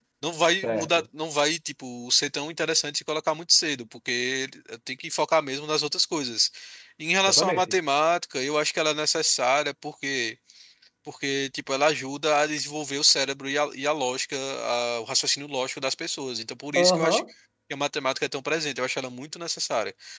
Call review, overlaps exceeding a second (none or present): none